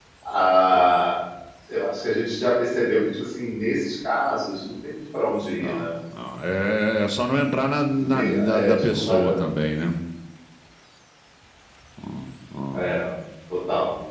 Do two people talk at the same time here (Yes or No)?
Yes